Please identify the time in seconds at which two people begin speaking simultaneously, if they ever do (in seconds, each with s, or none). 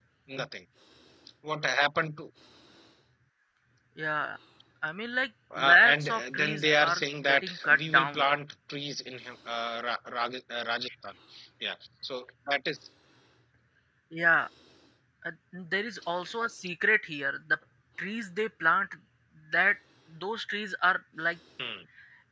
5.7 s